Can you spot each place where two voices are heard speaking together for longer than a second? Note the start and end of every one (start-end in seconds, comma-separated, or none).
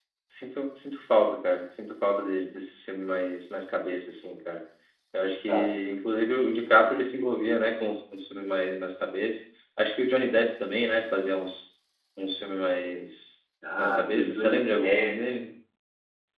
13.8-15.1